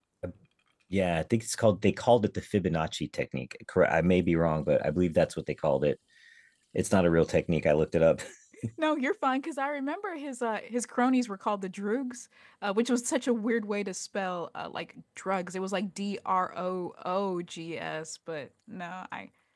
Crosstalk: none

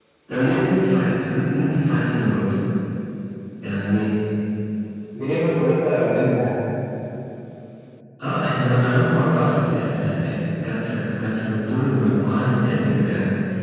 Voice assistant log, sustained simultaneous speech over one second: none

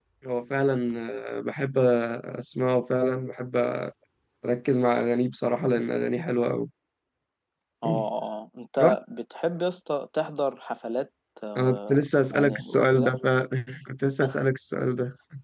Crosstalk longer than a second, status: present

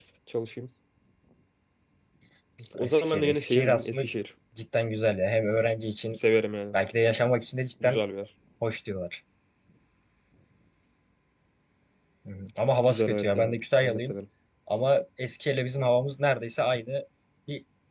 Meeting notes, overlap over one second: present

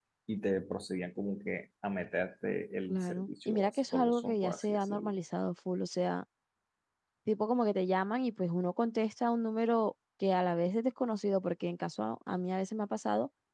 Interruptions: present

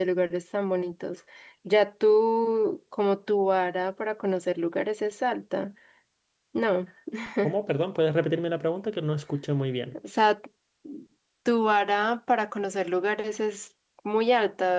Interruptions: none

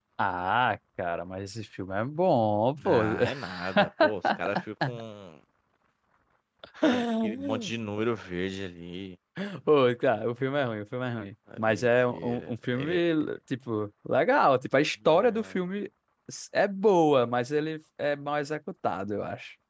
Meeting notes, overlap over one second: present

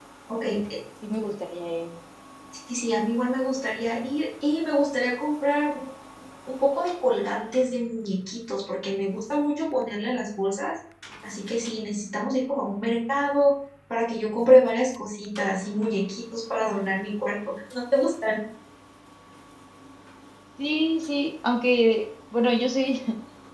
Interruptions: none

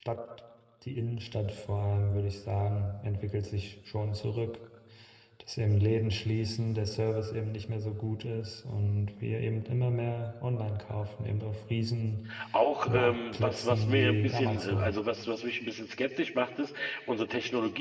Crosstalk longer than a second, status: present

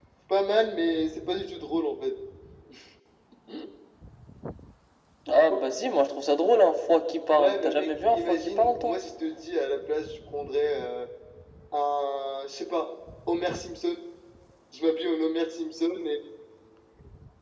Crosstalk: present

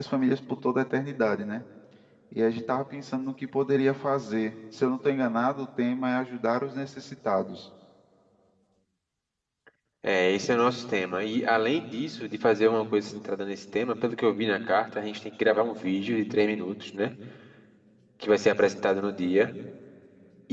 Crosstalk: none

